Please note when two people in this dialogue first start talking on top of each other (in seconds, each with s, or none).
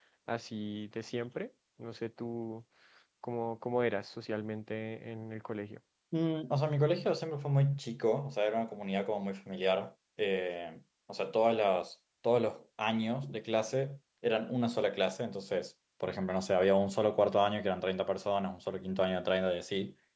none